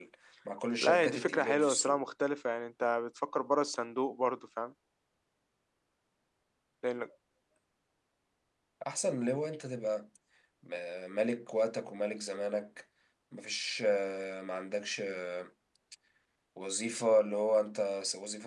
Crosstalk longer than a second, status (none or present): present